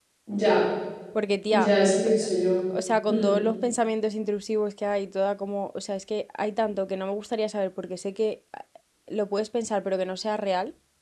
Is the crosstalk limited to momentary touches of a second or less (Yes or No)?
Yes